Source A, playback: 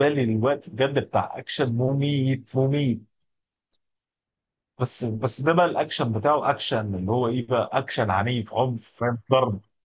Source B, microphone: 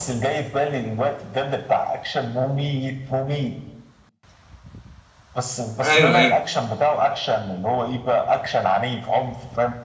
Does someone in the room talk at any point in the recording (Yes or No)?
Yes